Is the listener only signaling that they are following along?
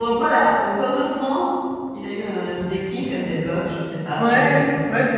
No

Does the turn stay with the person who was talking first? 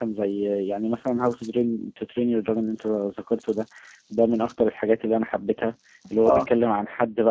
Yes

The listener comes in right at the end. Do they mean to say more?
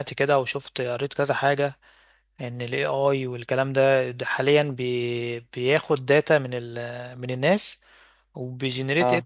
No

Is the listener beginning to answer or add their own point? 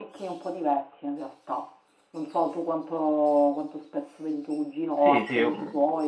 Yes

